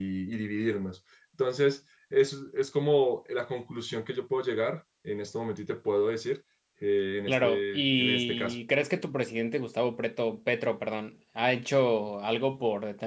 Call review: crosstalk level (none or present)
present